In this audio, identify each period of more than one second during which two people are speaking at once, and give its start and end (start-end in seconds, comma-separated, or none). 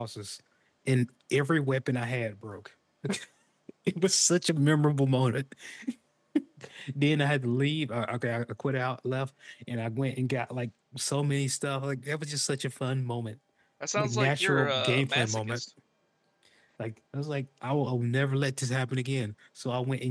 14.0-15.6